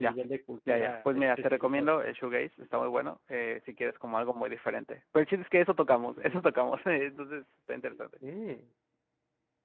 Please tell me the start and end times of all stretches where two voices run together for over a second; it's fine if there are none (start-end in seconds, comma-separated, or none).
0.7-1.9